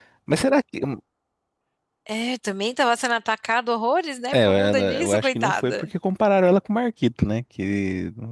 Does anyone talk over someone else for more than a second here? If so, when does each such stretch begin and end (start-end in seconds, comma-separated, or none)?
4.3-5.9